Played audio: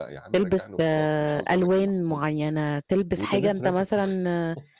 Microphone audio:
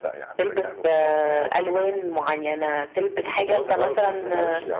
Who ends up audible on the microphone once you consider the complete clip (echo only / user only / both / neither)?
both